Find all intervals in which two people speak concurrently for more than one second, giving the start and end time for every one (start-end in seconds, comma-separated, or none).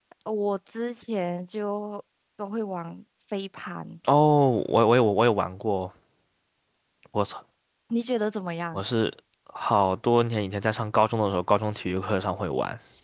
none